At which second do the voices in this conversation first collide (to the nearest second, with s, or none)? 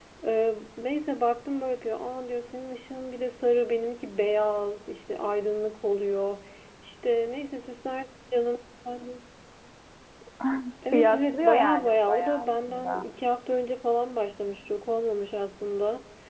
11 s